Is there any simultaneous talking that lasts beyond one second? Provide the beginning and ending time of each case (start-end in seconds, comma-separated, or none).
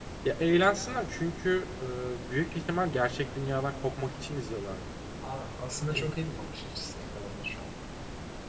none